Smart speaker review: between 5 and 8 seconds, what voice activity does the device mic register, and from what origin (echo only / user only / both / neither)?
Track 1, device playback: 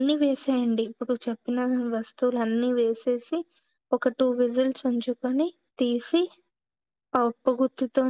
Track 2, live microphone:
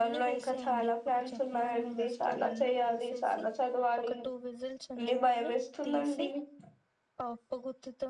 both